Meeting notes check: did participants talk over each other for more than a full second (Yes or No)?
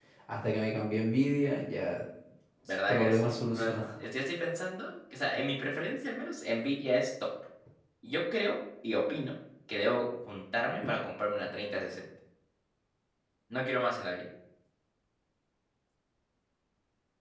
Yes